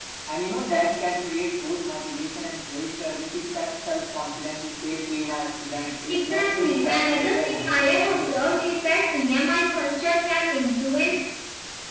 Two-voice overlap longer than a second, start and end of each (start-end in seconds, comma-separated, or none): 6.1-8.4